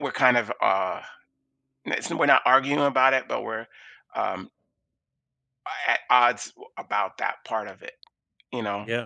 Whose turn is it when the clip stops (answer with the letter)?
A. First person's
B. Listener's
A